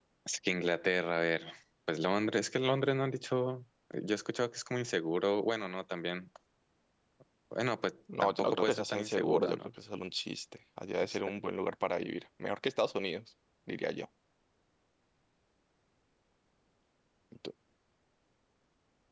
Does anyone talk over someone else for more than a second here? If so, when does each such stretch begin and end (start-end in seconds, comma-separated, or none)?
8.2-9.7